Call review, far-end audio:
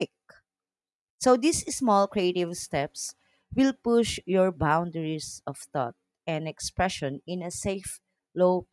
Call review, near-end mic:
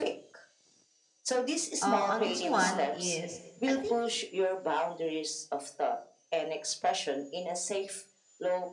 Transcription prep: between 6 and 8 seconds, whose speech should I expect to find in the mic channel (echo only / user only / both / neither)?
echo only